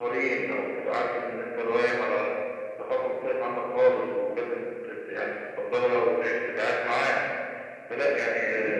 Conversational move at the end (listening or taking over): listening